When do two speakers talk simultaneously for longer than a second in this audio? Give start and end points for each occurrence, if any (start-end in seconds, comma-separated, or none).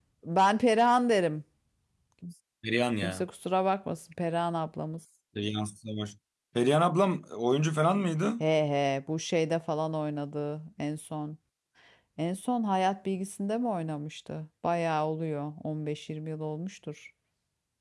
none